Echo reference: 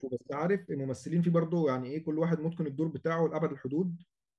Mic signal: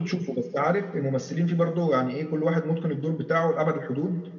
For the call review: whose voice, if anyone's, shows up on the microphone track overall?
echo only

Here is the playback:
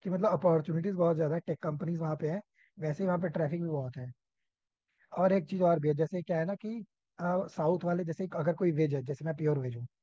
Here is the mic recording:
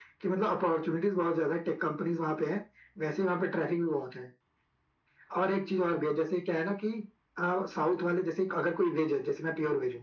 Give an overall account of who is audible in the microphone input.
echo only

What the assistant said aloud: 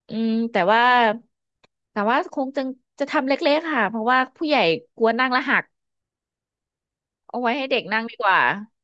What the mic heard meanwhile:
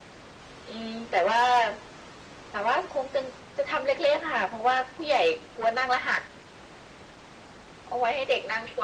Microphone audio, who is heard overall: echo only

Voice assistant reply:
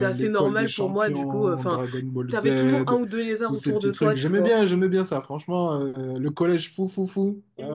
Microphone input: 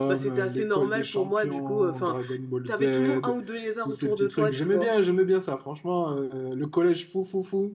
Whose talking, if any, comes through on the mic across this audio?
echo only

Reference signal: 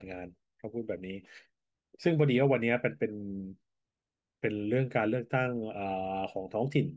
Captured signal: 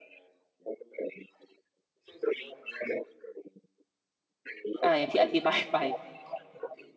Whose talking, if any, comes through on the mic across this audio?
both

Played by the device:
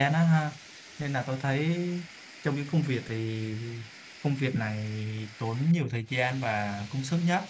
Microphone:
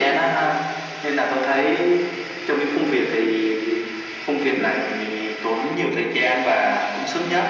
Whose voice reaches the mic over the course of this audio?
echo only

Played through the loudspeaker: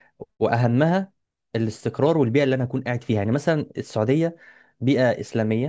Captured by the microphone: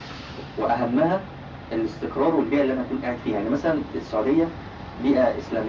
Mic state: echo only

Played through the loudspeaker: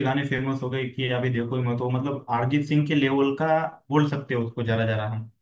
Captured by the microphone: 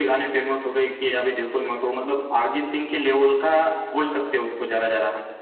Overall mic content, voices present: echo only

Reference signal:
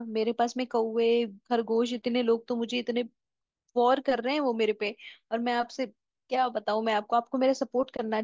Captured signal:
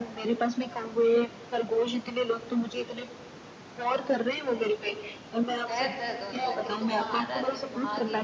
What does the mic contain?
both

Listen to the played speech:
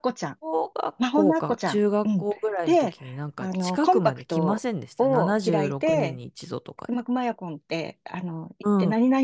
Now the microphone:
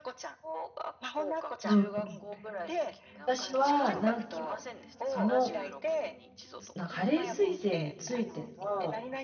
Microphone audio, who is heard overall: both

